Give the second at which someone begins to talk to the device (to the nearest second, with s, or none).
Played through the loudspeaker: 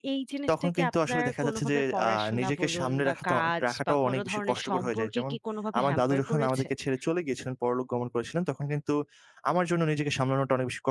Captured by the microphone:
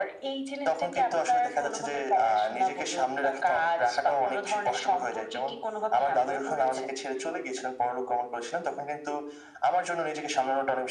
none